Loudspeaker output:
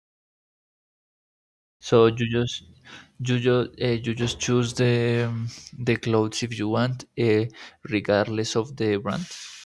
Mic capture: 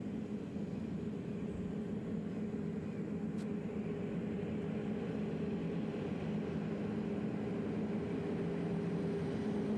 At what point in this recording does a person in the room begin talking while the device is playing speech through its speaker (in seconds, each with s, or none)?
none